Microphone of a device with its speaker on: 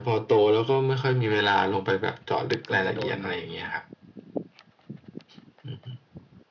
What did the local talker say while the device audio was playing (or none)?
ก็จะโดน